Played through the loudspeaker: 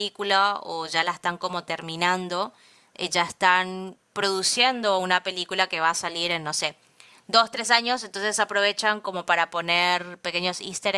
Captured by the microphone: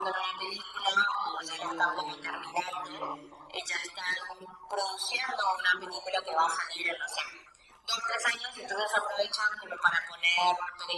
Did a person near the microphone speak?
Yes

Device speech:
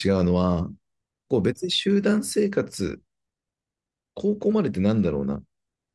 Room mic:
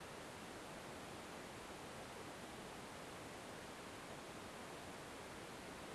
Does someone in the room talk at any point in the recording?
No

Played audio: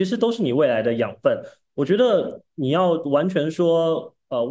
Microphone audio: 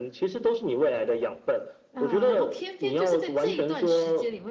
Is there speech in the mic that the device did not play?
Yes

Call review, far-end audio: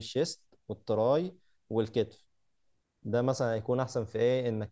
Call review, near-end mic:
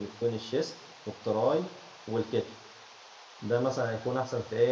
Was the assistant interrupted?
No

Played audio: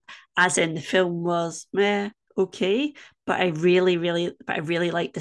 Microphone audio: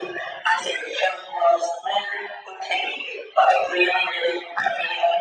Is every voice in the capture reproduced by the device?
Yes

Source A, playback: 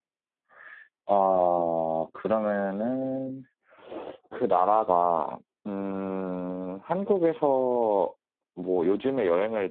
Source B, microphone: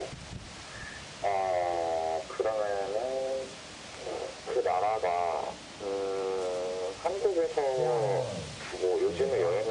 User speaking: Yes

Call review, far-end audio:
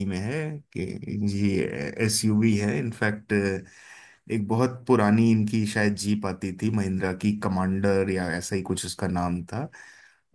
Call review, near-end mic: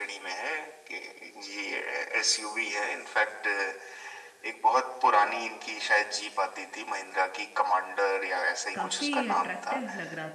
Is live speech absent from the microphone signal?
No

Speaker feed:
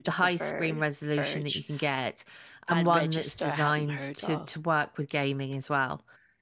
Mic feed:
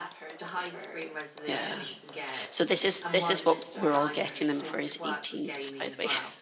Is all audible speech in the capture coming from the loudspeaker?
No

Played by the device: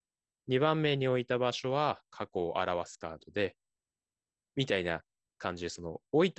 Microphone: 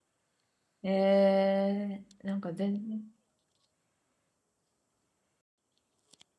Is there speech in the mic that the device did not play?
Yes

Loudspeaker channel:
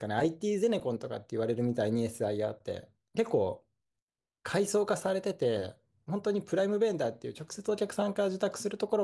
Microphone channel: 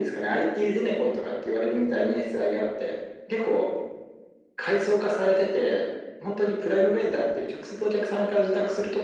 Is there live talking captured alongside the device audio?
No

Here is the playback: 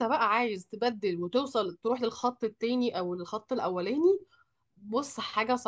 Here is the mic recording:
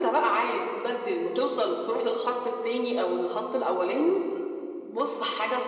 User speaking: No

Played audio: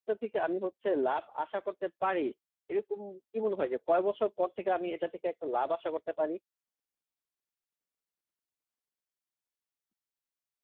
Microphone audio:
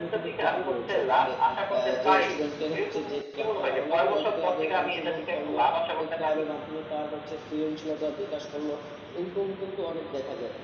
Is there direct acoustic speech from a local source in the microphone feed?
Yes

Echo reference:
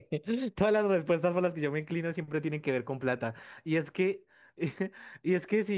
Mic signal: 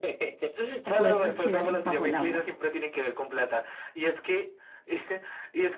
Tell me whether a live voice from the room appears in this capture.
Yes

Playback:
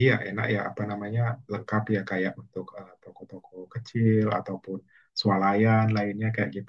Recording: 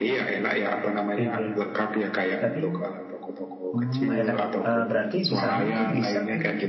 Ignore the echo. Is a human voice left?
Yes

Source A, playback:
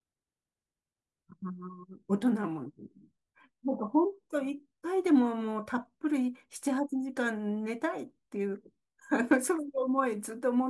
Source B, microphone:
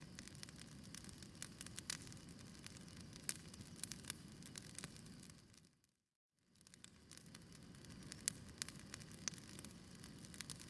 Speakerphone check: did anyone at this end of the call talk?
No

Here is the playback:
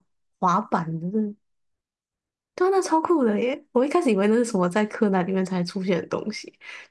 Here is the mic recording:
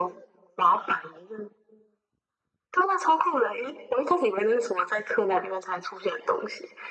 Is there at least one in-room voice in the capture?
No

